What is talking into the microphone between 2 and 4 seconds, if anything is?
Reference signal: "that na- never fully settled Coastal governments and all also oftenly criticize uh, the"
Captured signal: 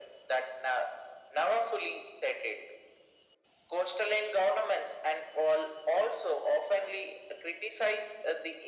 echo only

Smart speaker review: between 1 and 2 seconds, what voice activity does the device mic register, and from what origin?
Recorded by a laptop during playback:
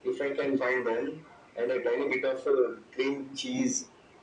echo only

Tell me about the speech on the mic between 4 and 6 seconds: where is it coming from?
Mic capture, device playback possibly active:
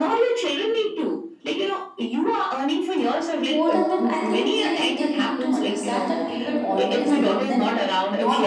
both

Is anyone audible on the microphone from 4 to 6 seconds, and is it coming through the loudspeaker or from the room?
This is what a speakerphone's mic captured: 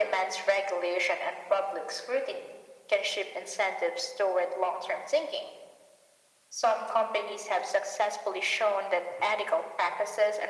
echo only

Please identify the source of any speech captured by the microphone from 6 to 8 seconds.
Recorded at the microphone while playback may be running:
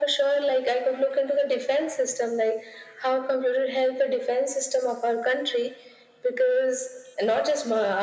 echo only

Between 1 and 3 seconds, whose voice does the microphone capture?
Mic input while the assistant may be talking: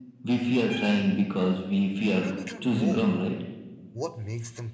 both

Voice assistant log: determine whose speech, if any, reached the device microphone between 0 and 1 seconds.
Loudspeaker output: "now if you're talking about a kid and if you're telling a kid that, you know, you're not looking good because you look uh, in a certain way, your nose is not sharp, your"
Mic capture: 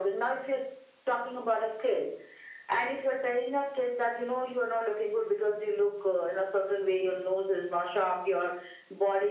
echo only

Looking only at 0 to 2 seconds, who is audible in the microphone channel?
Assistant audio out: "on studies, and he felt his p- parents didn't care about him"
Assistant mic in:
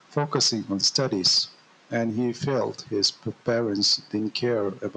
echo only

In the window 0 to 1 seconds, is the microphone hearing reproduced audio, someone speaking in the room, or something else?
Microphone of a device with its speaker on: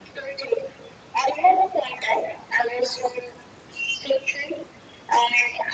echo only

